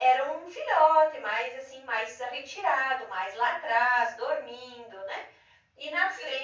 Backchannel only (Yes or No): Yes